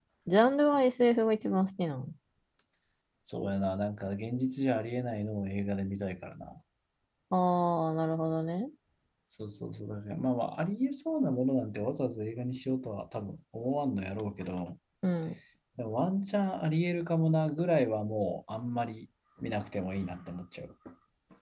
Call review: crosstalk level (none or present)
none